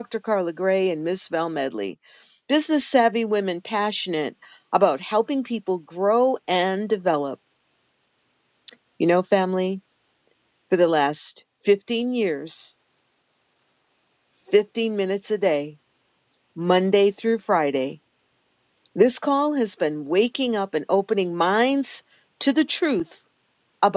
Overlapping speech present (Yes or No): No